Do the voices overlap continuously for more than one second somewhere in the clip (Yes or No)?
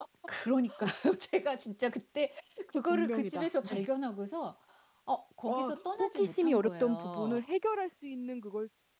Yes